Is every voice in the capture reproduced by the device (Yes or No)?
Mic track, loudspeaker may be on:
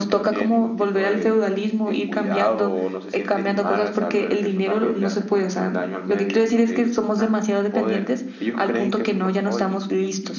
Yes